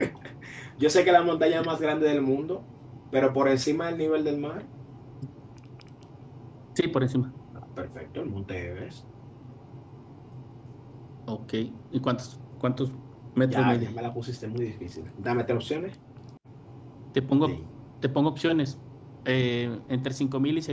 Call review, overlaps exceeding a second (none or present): none